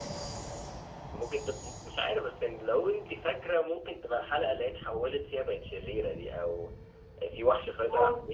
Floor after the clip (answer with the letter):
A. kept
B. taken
A